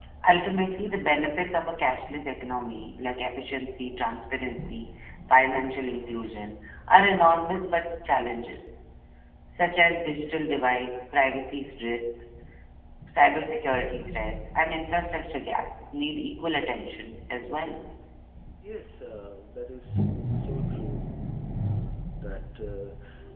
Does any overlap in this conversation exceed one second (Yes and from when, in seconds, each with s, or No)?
No